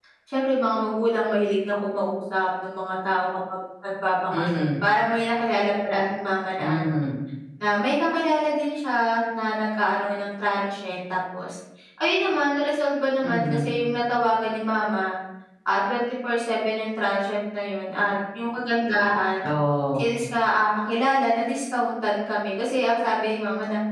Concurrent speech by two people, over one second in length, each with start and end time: none

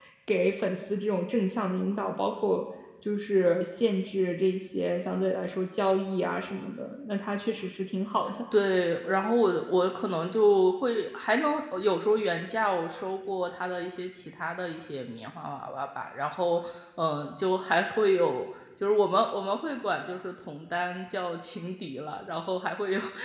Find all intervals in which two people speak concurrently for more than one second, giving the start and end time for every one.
none

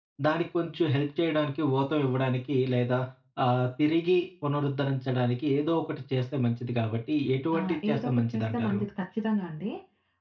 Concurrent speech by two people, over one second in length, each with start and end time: 7.6-8.8

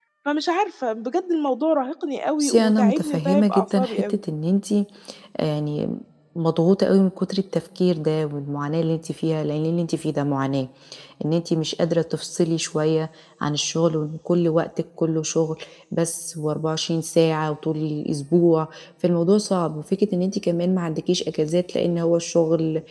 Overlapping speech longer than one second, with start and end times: 2.4-4.2

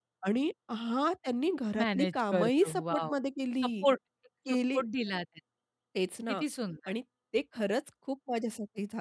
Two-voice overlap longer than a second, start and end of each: 1.8-3.1

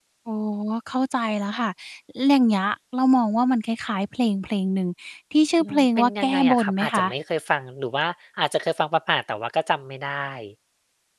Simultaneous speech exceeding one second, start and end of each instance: 5.6-7.0

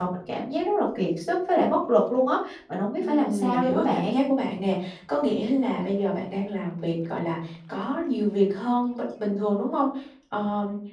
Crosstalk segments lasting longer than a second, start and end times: 3.0-4.2

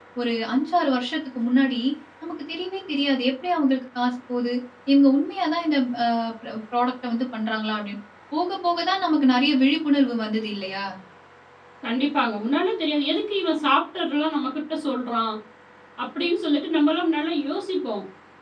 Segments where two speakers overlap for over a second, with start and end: none

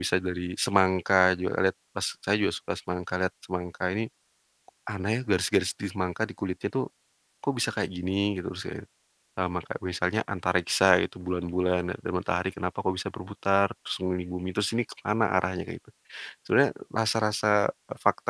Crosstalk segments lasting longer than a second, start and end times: none

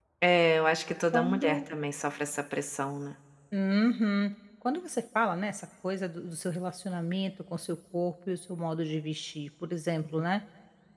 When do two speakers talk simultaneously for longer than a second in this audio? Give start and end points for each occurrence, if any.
none

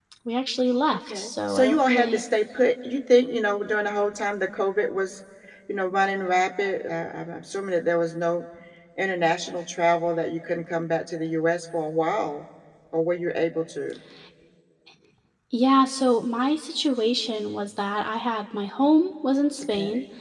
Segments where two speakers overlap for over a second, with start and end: 1.0-2.2

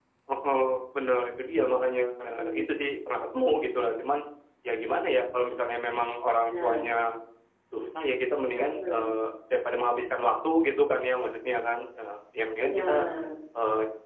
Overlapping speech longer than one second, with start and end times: none

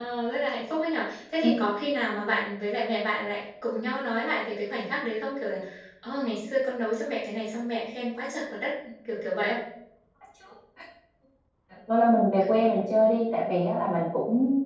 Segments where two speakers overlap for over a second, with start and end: none

